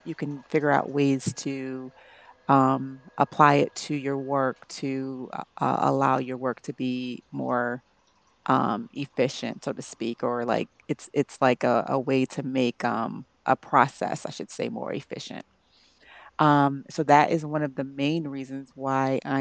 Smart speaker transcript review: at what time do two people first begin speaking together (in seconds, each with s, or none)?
none